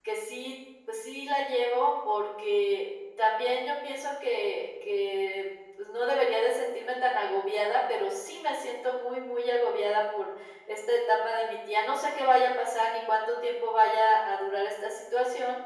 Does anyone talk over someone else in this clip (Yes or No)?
No